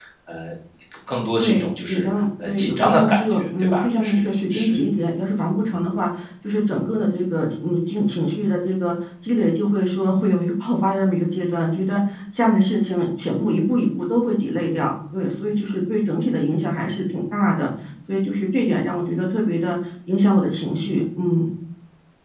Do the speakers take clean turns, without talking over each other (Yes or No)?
No